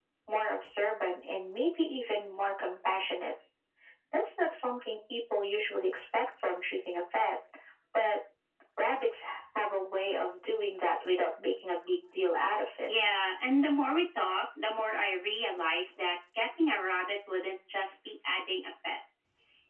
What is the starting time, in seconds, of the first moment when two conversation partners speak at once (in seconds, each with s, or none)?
none